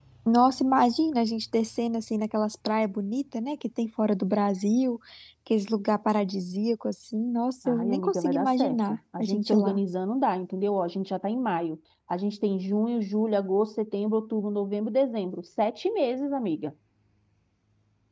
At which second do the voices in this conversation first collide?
7.6 s

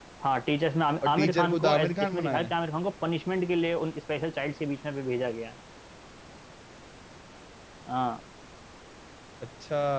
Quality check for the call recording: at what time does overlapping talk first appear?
1.0 s

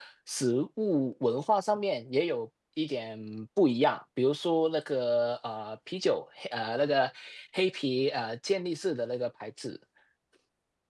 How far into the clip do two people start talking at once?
none

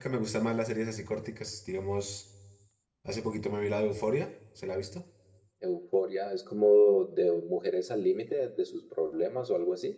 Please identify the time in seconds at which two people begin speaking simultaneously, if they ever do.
none

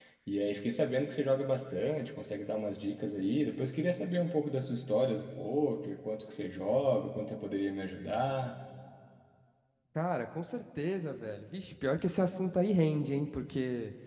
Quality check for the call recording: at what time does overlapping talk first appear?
none

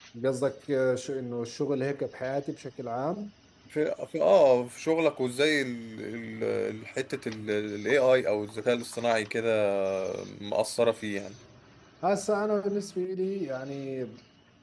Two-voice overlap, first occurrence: none

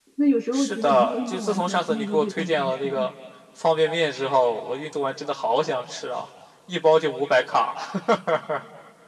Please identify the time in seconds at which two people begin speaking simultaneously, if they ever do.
0.5 s

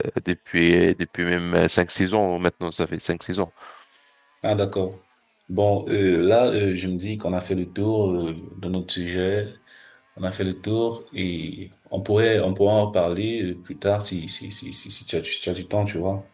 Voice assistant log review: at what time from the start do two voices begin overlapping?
none

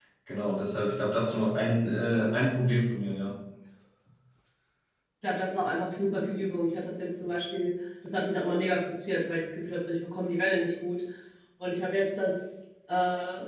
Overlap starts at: none

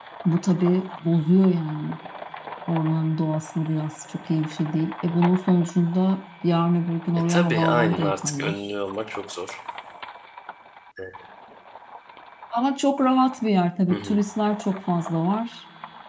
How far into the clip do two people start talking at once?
7.3 s

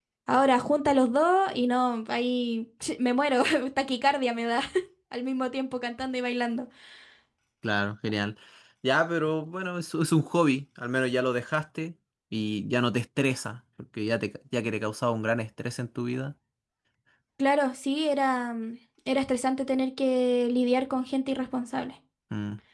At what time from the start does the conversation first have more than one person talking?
none

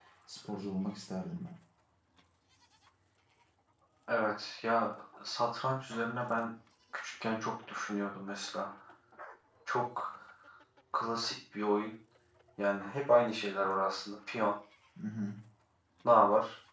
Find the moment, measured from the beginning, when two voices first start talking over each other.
none

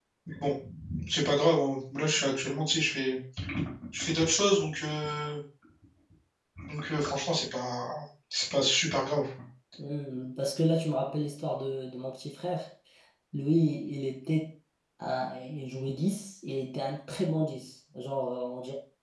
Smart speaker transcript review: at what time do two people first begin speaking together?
none

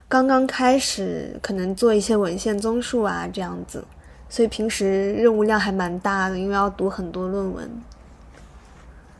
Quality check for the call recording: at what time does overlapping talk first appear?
none

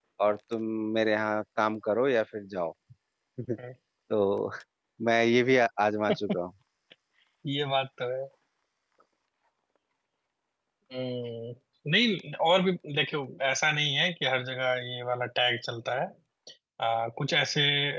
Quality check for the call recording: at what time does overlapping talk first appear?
none

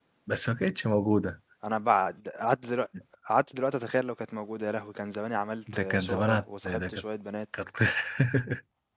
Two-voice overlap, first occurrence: 5.7 s

